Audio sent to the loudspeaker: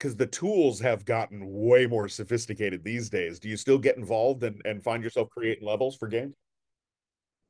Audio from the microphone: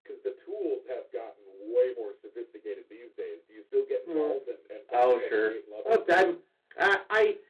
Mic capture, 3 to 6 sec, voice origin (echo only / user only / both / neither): both